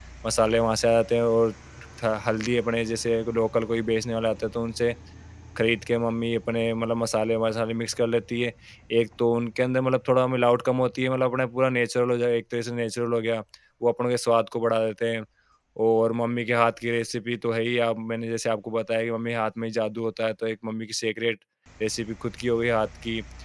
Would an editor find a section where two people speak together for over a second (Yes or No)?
No